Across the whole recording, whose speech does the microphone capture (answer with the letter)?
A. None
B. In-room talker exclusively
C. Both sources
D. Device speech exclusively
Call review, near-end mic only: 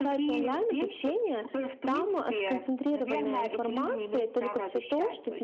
C